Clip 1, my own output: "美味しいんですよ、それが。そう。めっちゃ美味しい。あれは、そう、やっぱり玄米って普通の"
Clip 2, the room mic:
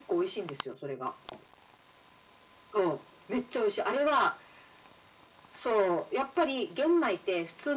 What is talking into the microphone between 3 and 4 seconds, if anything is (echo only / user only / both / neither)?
echo only